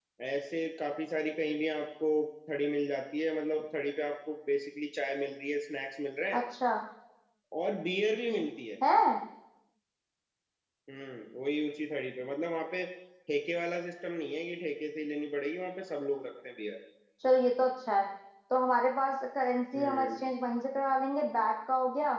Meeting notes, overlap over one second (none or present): none